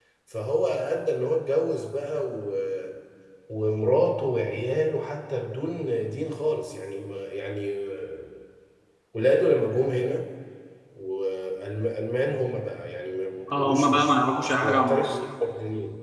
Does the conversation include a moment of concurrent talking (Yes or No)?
Yes